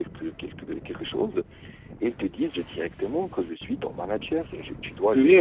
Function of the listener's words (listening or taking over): listening